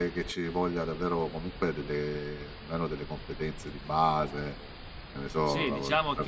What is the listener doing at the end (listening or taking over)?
taking over